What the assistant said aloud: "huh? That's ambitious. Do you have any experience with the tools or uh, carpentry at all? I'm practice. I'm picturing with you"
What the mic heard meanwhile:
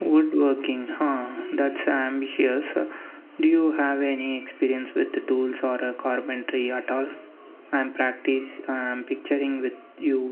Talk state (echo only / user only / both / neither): echo only